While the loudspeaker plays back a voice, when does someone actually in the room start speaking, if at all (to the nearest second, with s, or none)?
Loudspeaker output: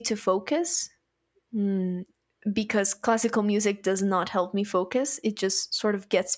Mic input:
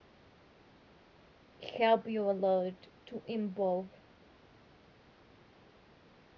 2 s